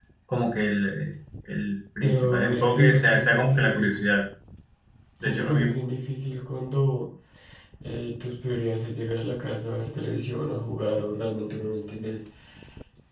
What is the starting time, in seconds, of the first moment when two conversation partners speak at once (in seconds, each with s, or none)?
2.0 s